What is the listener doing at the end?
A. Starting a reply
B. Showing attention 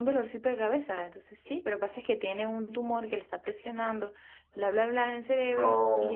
B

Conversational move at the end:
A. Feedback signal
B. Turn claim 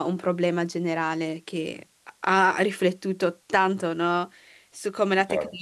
A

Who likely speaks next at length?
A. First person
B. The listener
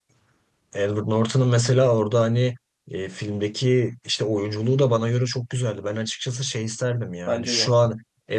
A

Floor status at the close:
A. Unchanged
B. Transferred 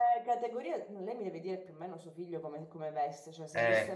A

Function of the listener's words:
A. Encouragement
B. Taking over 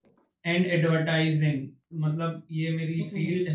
A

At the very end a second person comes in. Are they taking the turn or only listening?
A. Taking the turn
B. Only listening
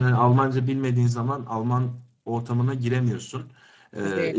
B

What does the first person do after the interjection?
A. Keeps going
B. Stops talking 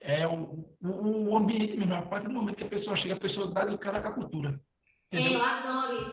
B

